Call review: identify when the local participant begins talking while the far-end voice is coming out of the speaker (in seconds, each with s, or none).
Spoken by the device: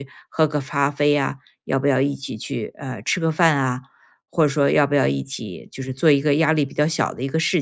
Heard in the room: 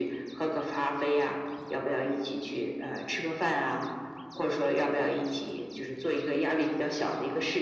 none